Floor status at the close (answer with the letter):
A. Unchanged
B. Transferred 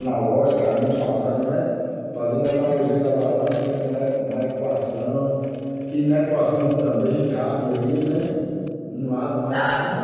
A